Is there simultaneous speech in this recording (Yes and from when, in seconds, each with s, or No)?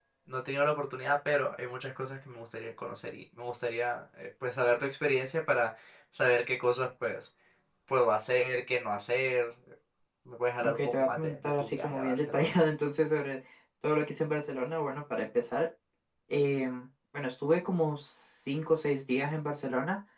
Yes, from 10.6 s